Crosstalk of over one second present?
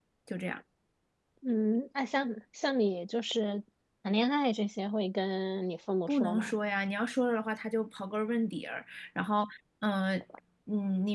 No

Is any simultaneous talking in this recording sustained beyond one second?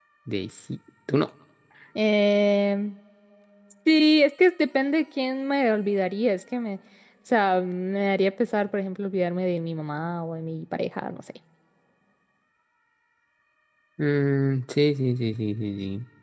No

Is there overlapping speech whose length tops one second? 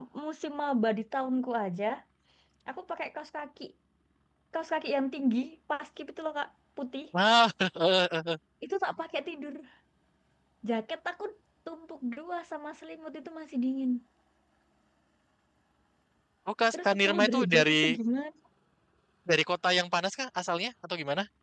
Yes, from 16.7 s

